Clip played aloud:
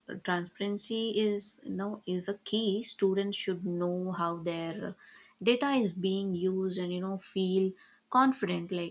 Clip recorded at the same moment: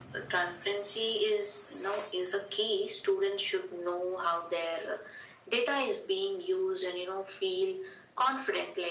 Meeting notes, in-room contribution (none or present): none